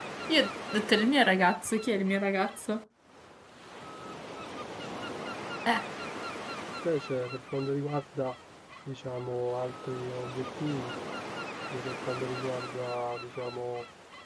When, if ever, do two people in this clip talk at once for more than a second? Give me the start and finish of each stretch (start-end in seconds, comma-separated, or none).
none